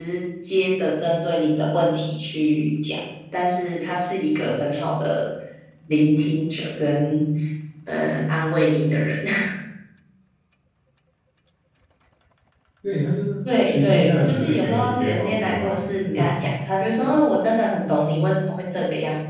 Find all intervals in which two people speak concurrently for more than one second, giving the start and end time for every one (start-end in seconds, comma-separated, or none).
13.6-15.8